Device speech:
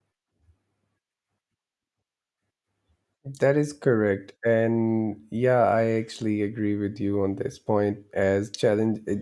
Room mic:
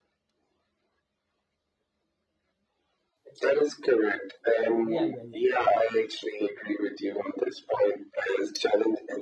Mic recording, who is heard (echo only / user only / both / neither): both